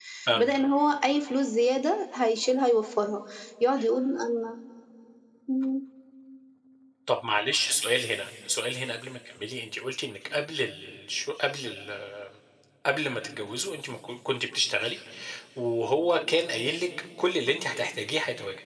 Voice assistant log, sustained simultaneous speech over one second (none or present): none